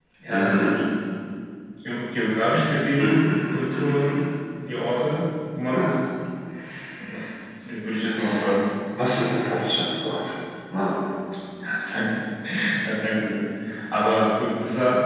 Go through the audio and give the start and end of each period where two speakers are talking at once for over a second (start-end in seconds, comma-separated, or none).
3.0-4.2